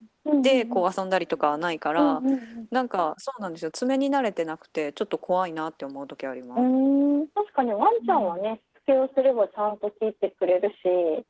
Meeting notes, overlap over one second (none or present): none